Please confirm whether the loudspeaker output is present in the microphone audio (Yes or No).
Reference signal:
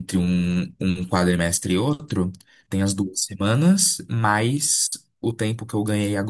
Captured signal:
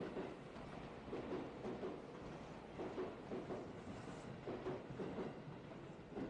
No